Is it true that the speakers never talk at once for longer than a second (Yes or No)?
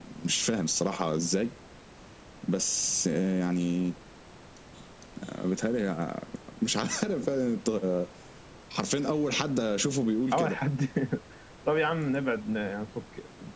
Yes